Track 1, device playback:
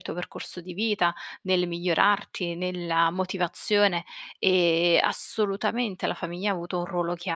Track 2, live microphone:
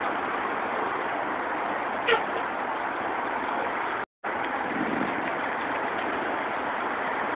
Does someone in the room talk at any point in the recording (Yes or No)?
No